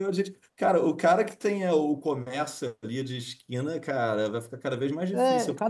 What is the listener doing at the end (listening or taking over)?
taking over